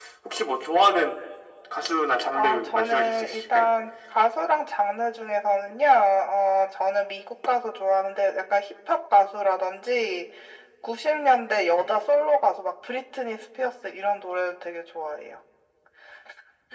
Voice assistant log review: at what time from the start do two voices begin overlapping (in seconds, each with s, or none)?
2.3 s